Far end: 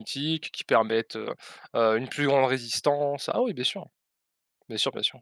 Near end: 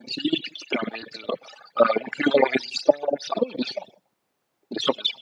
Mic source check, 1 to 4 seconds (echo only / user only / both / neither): echo only